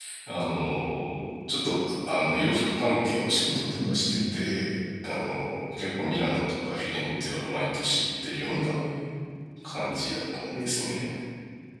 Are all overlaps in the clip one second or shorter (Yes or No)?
No